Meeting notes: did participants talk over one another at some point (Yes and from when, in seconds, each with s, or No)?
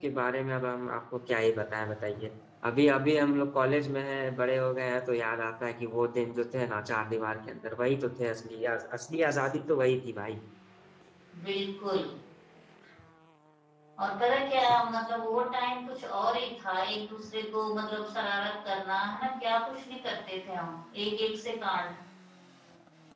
No